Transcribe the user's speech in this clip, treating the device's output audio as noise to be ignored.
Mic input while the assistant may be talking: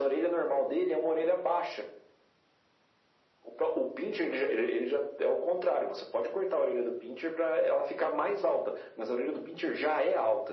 none

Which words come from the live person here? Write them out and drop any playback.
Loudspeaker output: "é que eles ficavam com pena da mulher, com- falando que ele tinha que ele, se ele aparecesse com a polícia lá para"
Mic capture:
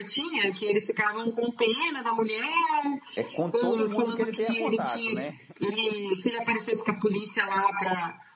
É com todo mundo que ele tenha contato, né?

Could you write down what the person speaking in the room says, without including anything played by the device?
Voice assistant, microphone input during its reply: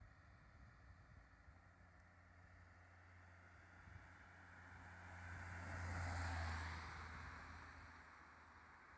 none

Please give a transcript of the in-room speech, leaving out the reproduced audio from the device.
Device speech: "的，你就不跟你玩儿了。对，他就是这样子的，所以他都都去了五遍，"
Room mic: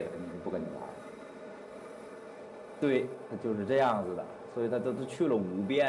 none

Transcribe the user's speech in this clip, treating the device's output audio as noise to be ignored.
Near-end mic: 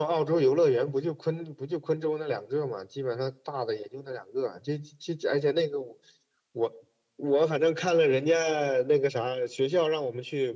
none

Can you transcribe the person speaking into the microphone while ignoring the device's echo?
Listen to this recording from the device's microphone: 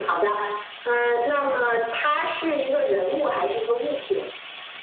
none

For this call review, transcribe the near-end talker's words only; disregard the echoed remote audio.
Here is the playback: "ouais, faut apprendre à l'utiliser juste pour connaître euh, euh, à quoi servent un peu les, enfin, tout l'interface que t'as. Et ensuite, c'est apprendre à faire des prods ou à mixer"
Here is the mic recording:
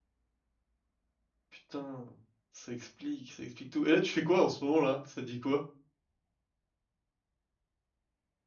Putain, ça explique, ça explique tout. Et là, tu fais quoi en ce moment là? Ça dit quoi?

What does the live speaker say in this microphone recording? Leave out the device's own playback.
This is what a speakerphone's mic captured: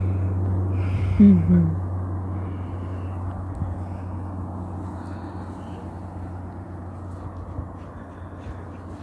うんうん。

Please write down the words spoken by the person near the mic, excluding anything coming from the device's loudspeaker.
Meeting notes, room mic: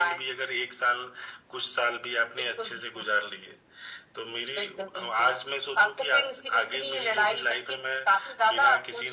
none

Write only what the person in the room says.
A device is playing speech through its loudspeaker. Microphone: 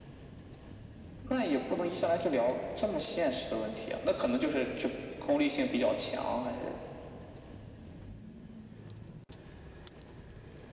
none

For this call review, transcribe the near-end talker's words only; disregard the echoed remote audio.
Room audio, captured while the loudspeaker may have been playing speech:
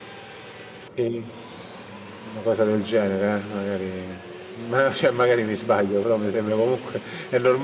none

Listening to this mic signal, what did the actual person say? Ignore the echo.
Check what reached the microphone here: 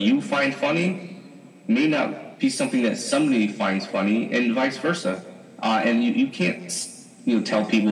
none

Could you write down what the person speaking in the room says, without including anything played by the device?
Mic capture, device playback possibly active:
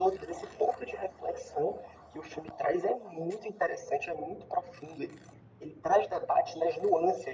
none

